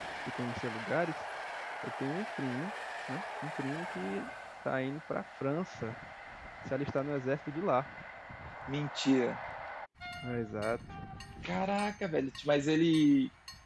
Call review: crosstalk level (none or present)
none